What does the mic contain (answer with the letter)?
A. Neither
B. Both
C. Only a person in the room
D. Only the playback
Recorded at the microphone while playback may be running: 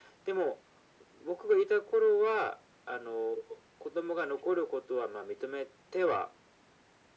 D